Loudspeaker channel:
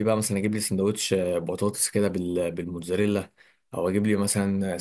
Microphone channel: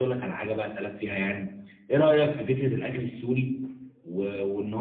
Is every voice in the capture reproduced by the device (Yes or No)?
No